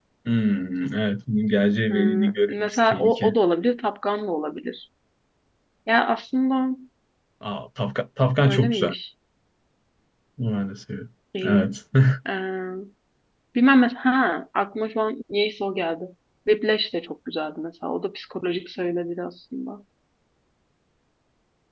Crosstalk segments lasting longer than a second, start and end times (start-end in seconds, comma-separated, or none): 1.9-3.3